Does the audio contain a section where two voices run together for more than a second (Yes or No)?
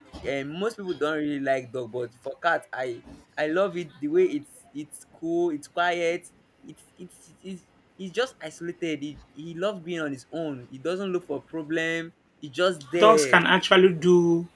No